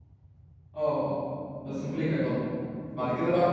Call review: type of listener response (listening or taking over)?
listening